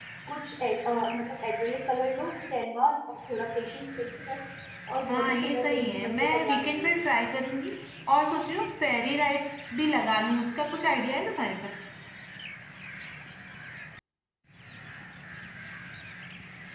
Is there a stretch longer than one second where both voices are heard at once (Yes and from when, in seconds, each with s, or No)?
Yes, from 5.1 s